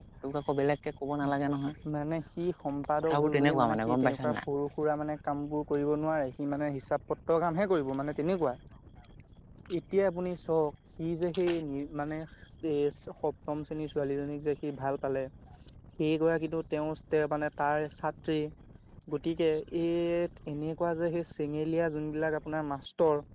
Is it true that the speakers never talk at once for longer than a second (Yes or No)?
No